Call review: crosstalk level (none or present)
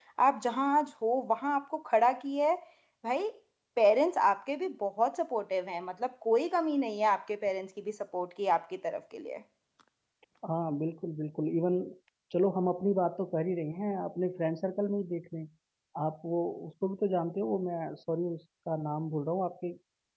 none